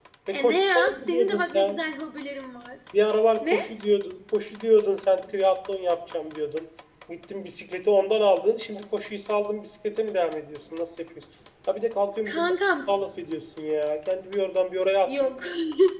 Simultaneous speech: Yes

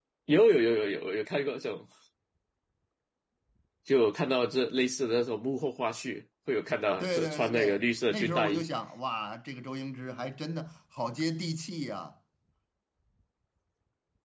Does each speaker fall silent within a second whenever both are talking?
No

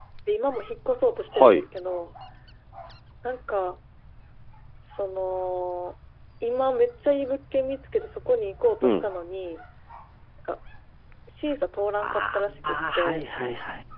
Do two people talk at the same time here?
Yes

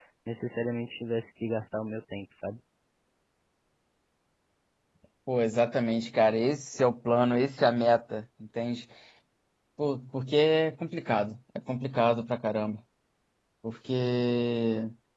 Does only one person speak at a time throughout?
Yes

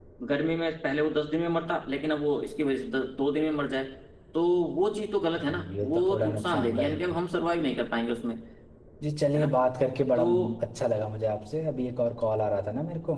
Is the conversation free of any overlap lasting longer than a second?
No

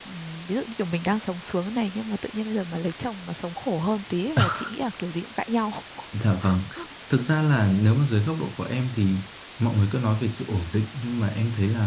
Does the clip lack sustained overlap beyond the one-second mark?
Yes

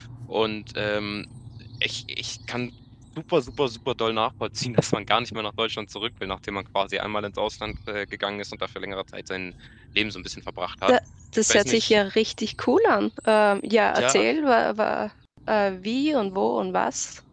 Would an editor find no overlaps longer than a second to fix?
Yes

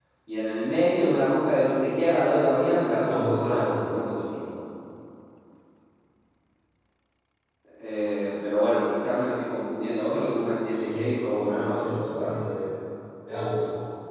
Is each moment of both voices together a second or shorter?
No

